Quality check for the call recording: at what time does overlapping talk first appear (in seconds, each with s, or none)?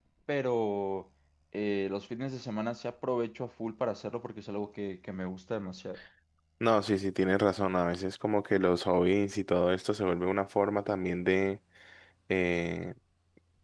none